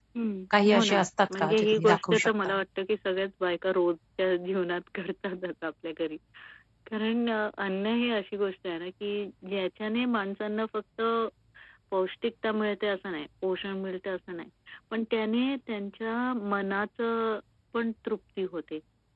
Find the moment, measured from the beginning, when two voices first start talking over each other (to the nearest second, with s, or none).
1 s